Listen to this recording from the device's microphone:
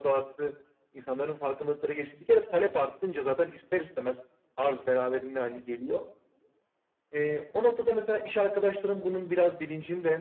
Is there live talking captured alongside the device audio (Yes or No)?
No